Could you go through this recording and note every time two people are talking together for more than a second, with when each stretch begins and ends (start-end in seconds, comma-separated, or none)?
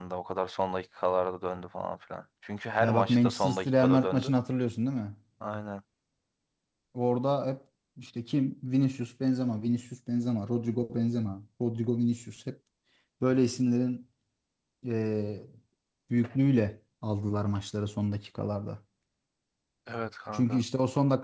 2.8-4.3